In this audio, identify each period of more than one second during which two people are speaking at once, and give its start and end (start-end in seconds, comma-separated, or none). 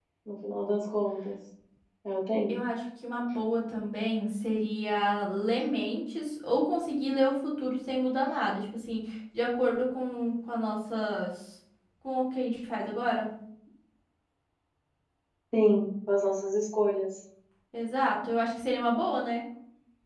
none